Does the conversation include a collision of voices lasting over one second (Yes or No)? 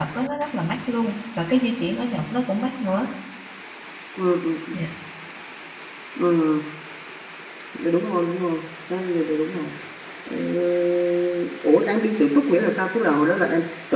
No